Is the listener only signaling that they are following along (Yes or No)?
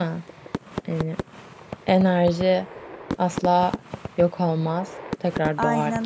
No